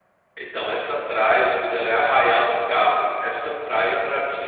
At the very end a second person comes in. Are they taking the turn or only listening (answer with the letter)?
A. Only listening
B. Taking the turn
A